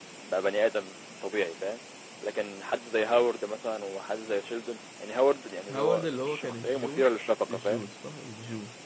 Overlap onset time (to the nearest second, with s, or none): 6 s